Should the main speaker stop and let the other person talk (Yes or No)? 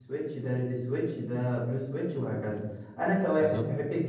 No